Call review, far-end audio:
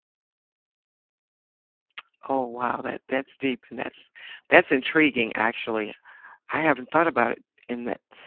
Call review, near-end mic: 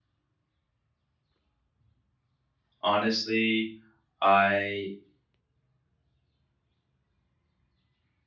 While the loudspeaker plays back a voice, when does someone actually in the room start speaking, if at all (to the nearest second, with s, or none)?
3 s